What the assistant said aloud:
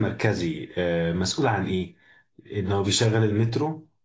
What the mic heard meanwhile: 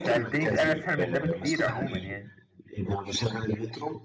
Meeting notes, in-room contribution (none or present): present